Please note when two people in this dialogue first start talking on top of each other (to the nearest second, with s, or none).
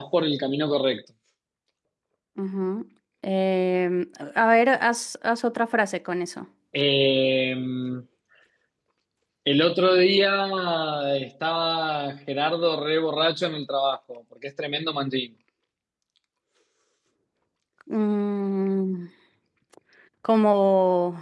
none